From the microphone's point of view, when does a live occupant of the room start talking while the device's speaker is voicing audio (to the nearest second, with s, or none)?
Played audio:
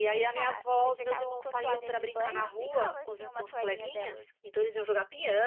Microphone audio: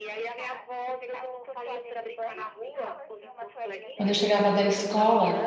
4 s